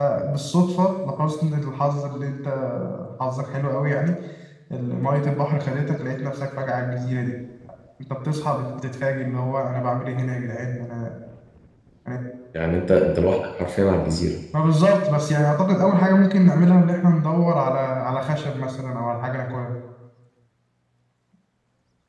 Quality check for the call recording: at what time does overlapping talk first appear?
none

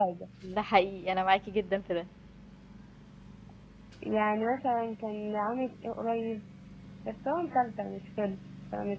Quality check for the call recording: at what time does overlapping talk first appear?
none

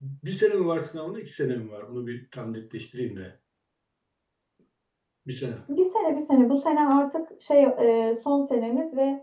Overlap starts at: none

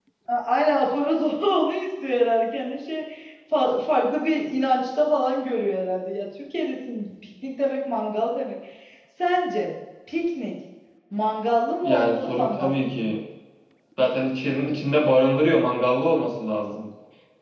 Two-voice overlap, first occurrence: 12 s

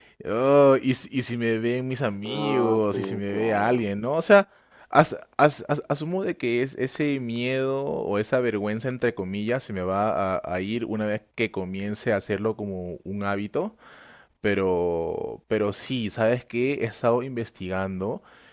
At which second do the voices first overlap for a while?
2 s

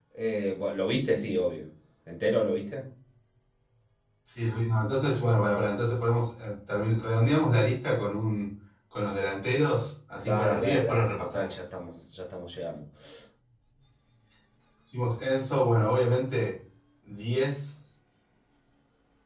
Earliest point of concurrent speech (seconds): 10 s

